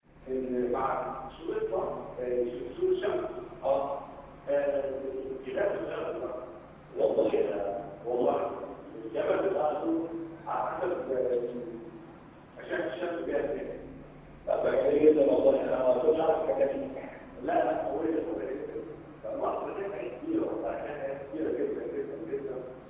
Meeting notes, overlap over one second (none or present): none